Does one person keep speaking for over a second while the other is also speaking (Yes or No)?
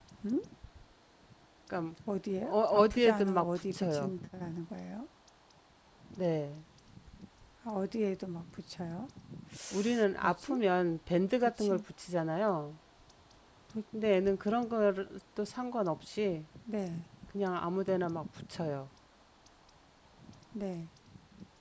Yes